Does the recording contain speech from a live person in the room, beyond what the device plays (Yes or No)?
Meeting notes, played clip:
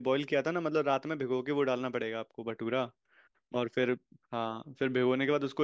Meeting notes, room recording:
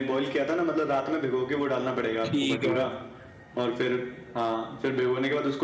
Yes